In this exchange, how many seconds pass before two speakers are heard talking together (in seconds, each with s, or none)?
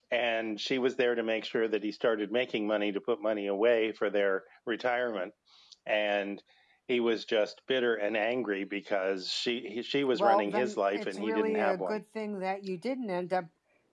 10.1 s